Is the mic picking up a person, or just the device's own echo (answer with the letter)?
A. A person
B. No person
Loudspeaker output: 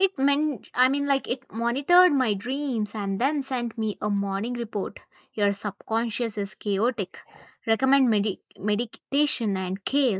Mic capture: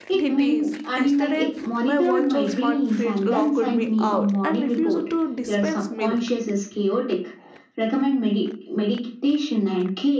A